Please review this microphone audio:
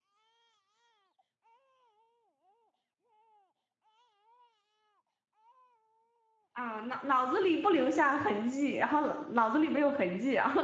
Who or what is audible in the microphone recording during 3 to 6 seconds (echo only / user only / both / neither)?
neither